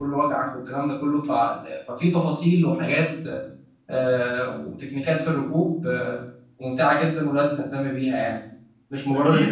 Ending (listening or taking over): taking over